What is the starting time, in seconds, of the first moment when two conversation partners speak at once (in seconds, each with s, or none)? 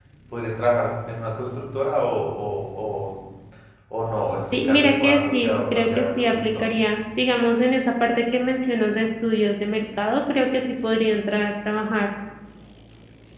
4.5 s